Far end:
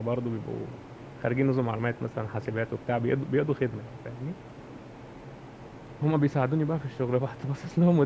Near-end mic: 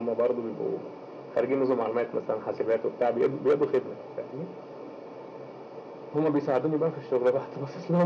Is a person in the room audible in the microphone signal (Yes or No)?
No